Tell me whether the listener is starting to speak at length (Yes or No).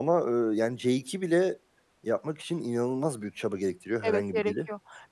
Yes